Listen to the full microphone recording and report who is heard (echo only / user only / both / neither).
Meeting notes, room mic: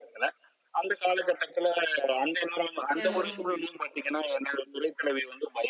both